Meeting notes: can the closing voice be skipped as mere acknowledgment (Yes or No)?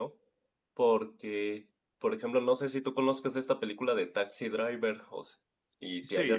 Yes